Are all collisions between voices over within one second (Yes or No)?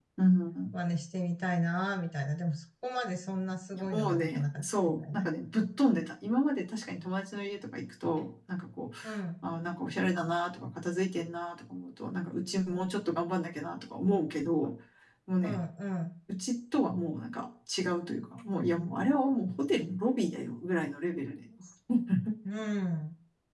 No